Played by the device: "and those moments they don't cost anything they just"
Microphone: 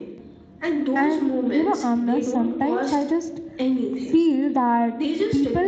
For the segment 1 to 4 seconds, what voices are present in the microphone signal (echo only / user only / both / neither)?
both